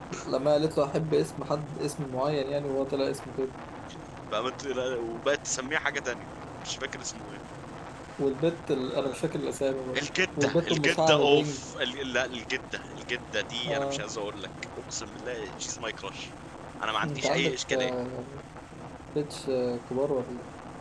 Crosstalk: present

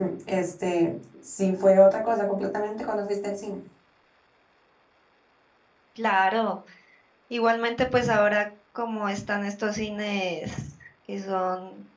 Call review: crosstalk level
none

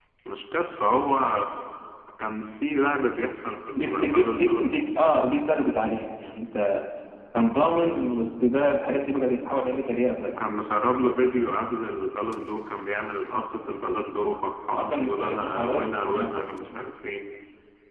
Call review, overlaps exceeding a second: present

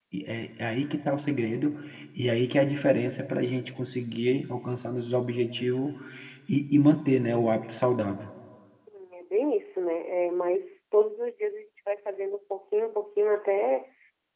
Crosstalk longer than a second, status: none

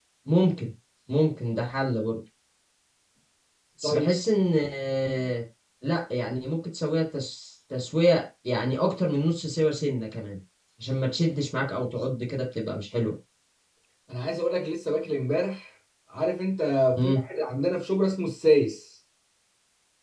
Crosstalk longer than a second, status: none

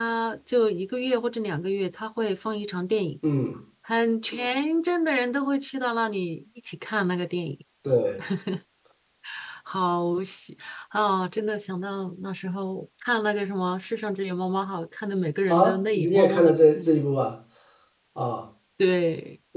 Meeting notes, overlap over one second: present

